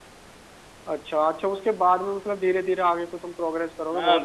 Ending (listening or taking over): taking over